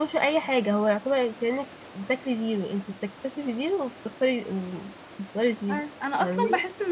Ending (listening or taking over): taking over